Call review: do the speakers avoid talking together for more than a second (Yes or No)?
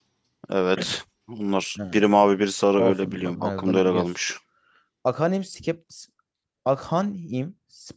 No